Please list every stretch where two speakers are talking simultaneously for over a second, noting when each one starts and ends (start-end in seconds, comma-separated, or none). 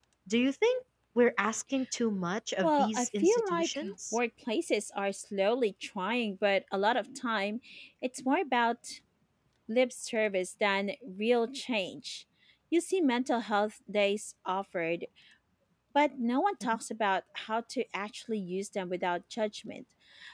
2.6-4.2